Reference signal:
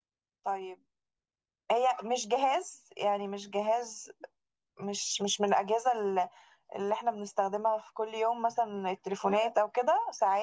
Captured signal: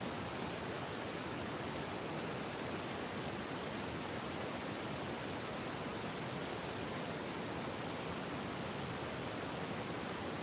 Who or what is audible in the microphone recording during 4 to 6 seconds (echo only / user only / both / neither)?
neither